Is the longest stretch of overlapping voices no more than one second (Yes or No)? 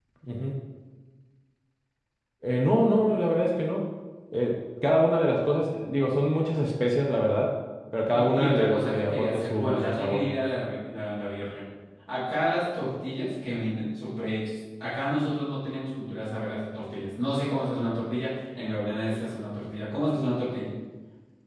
No